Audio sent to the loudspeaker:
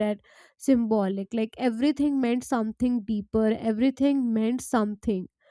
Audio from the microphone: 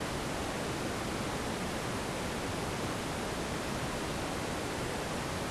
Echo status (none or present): none